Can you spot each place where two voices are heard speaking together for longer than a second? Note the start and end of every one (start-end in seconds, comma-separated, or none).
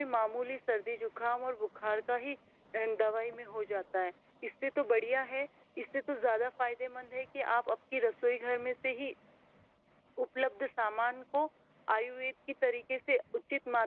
none